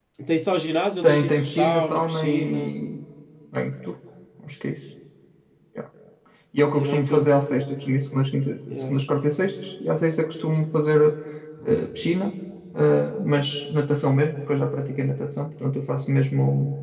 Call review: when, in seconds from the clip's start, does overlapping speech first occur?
1 s

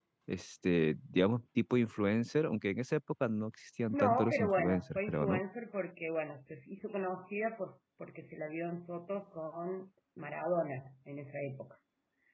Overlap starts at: 4 s

